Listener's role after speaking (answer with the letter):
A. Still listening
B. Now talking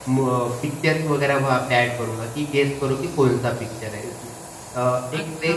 B